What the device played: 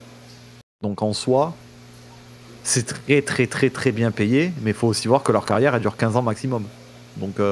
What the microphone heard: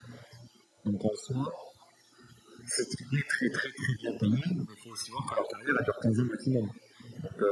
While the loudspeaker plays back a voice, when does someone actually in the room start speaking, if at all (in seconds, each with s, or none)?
none